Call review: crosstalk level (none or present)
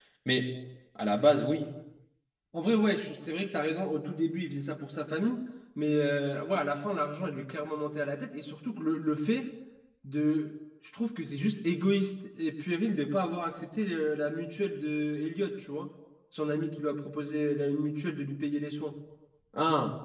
none